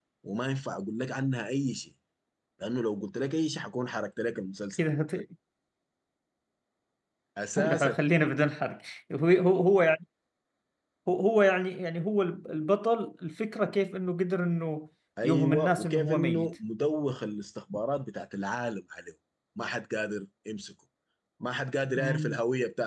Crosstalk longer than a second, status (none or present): present